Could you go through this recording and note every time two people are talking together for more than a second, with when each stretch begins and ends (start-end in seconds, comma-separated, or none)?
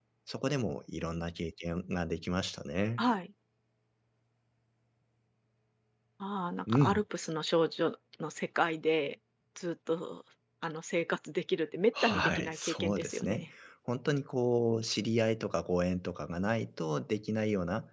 12.0-13.5